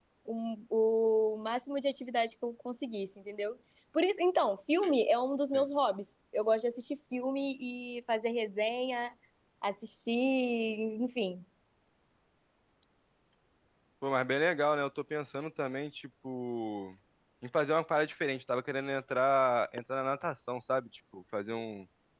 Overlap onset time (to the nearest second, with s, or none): none